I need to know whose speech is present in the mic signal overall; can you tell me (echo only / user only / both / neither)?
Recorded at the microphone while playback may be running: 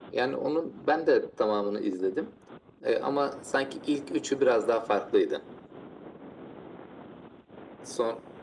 echo only